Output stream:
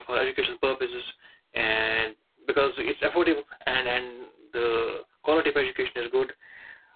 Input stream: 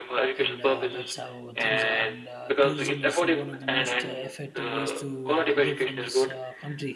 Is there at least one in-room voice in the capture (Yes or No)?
Yes